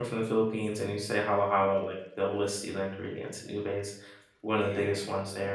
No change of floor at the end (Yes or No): No